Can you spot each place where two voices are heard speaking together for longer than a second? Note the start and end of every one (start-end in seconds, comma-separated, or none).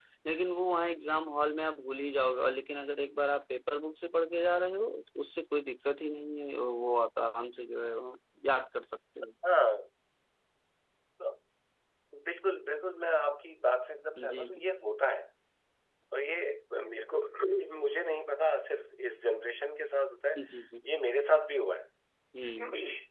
none